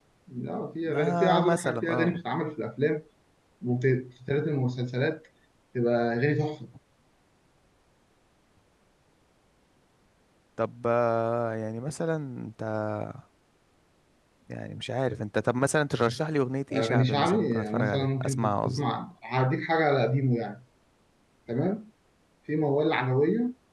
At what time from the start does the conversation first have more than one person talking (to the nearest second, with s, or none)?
1 s